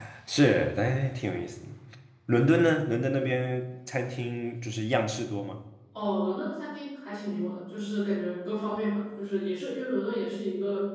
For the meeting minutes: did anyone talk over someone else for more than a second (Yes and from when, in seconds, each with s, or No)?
No